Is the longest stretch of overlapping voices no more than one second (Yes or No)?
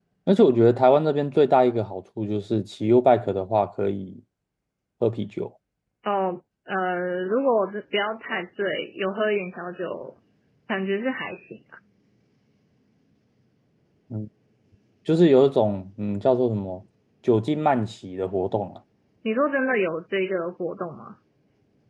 Yes